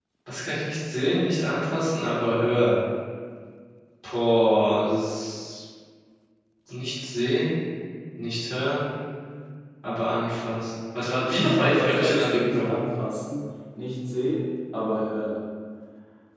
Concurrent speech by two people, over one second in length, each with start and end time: 11.4-12.8

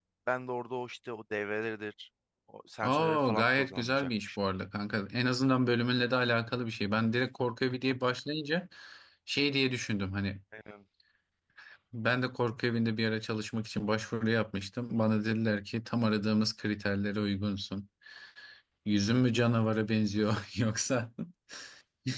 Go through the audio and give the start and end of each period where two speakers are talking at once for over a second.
2.8-4.3

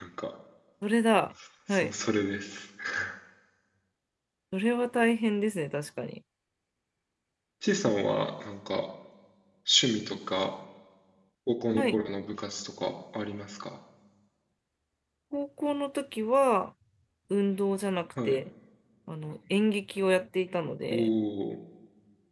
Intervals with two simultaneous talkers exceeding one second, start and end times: none

